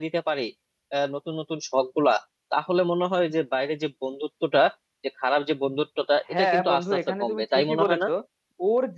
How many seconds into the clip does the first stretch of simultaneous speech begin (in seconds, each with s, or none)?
6.3 s